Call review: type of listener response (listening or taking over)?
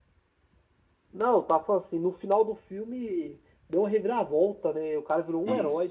taking over